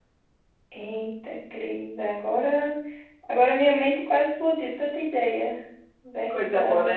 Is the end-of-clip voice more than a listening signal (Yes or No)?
Yes